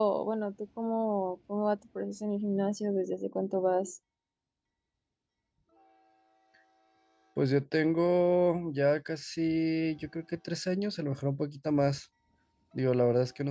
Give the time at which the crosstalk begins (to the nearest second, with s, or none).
none